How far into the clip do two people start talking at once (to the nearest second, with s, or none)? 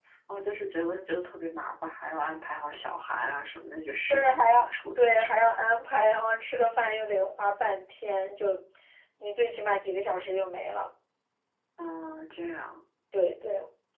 4 s